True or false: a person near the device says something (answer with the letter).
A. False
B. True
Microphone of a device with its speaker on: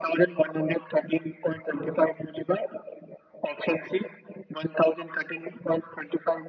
A